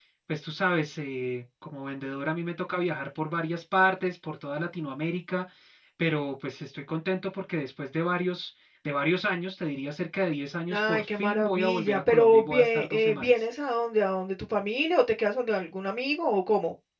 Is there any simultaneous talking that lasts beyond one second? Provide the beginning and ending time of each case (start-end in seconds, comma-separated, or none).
10.7-13.4